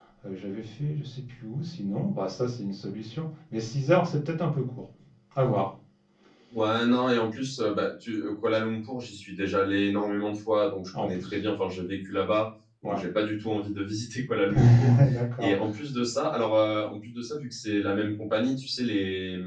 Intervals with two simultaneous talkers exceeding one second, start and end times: none

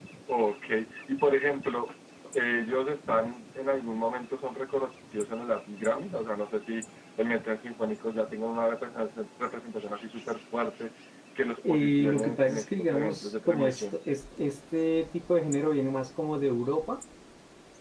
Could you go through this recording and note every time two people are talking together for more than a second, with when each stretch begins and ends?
11.7-13.8

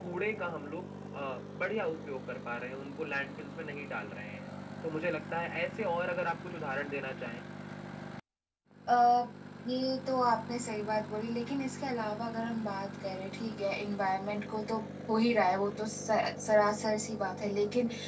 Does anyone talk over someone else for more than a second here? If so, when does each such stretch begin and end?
none

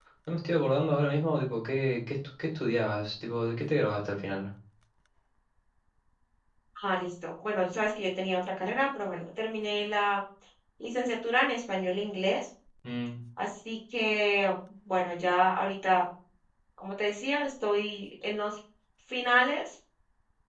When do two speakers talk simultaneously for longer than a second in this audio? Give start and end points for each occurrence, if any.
none

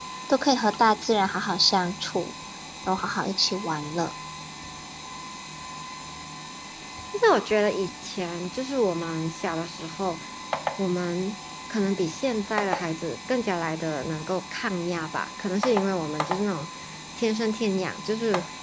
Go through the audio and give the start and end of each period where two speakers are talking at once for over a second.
none

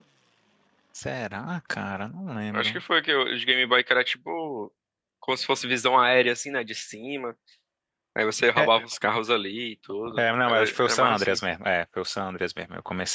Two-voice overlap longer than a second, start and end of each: 10.2-11.4

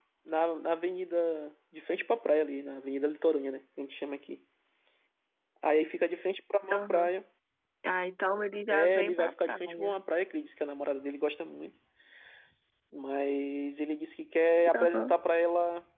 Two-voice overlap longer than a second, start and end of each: 8.7-10.0

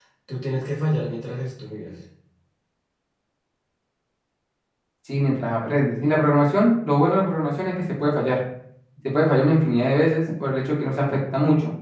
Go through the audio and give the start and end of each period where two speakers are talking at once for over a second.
none

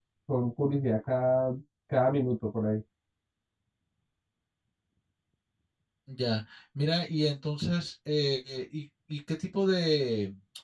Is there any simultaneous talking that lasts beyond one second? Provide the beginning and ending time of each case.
none

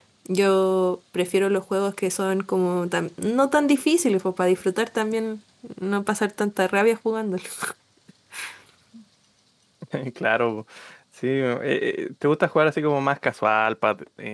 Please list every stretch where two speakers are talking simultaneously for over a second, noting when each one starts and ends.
none

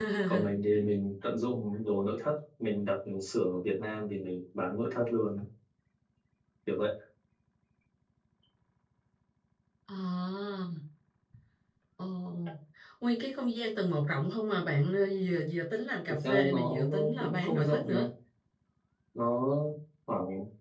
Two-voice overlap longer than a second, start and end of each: 16.1-18.1

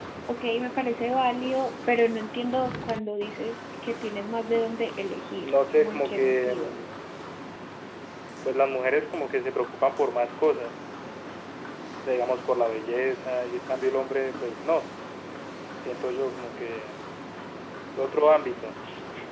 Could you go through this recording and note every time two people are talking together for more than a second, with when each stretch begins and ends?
5.4-6.8

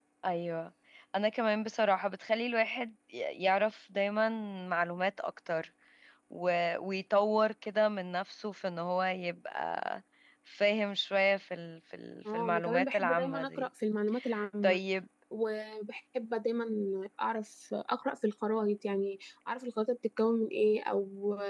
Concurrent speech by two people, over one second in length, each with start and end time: 12.3-13.7

